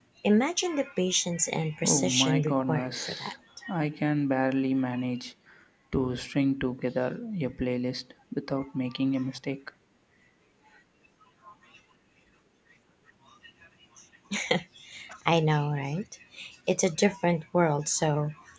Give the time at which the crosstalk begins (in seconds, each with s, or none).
1.8 s